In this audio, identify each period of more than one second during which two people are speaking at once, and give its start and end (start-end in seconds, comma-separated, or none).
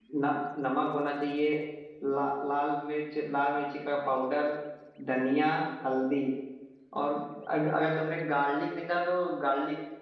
none